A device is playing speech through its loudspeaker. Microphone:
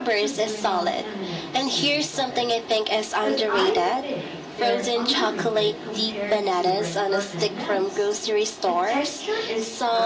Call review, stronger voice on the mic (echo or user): echo